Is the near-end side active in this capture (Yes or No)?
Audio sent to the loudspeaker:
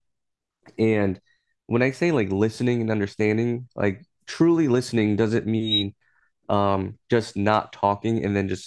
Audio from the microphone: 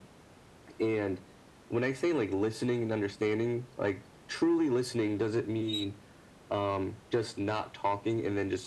No